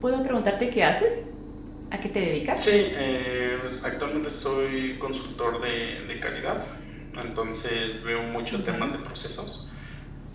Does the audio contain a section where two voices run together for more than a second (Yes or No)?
No